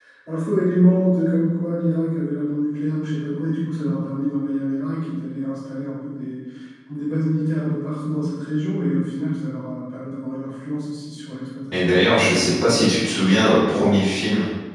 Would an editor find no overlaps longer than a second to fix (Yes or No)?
No